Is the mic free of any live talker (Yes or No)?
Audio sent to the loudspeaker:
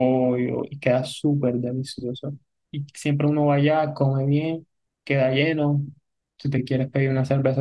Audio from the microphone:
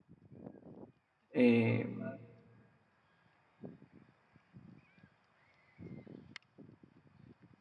No